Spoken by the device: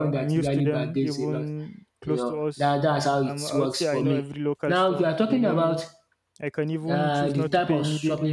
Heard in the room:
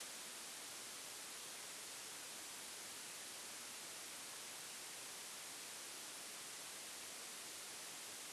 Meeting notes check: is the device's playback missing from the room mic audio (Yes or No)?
Yes